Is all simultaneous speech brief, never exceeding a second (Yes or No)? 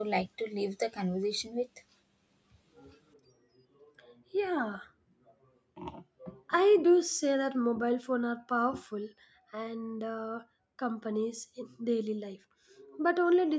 Yes